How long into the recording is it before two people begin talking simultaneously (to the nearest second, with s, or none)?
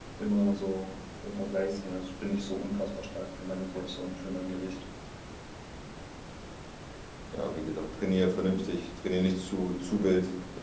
none